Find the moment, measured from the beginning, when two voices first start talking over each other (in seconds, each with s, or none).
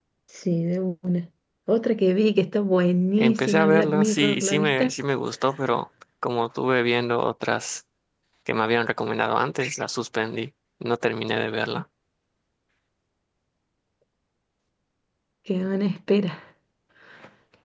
3.2 s